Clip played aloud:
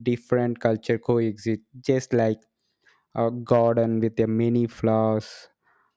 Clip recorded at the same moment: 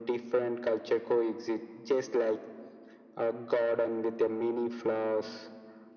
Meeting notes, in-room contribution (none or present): none